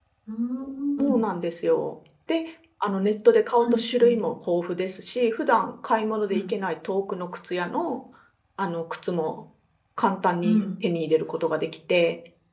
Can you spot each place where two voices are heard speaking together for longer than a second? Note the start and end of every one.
none

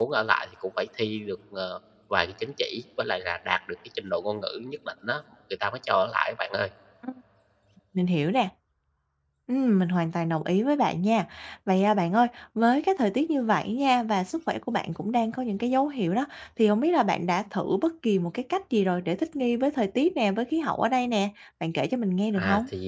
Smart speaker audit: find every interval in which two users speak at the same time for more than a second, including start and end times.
none

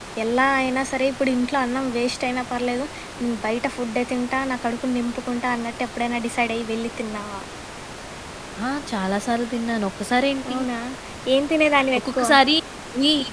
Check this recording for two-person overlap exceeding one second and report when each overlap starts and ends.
none

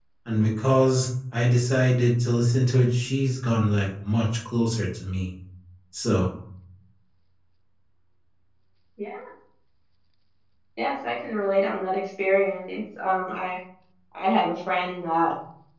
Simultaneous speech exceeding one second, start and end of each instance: none

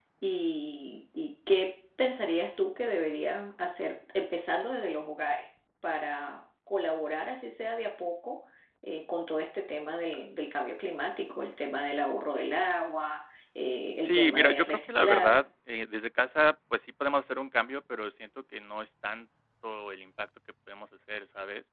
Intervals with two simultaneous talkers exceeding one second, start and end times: 14.0-15.4

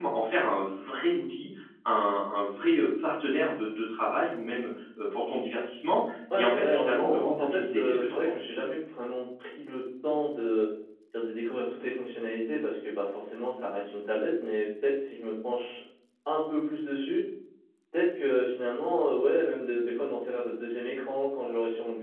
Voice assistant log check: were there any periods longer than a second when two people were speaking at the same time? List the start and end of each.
6.4-8.4

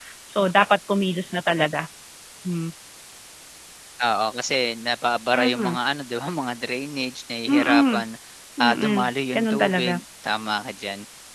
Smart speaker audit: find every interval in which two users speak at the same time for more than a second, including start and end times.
8.6-10.0

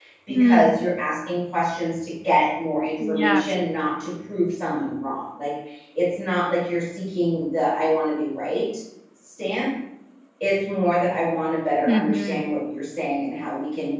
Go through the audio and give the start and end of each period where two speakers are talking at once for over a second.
none

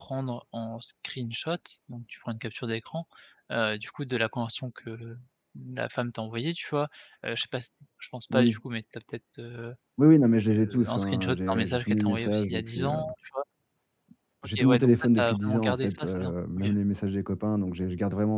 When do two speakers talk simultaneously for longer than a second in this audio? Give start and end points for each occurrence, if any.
10.5-13.0, 14.4-16.6

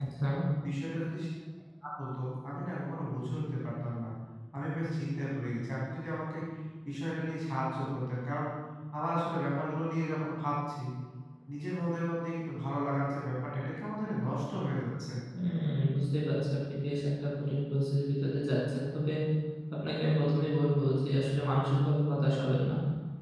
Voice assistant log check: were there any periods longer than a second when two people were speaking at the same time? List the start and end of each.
none

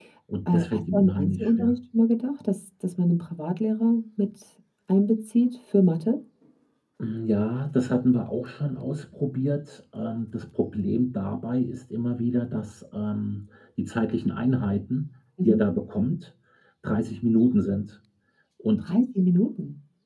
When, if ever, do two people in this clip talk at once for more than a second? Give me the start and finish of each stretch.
0.5-1.8

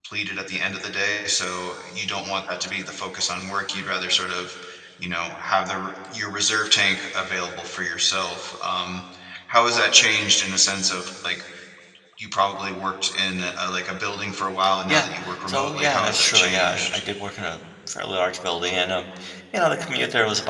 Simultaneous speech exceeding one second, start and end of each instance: 15.5-17.0

